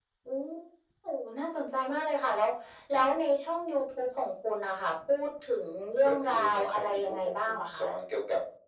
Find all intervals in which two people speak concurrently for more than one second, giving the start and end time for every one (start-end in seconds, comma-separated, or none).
6.0-7.8